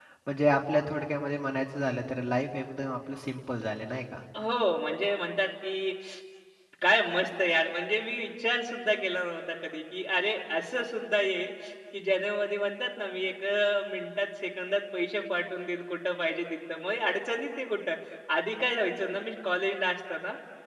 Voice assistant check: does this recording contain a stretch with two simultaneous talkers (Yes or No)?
No